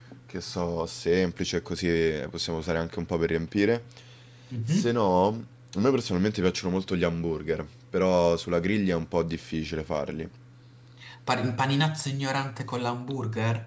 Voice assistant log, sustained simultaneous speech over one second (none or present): none